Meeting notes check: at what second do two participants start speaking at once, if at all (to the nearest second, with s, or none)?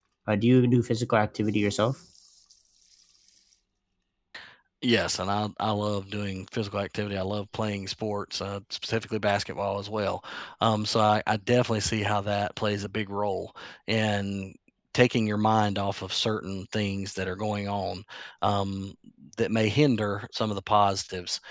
none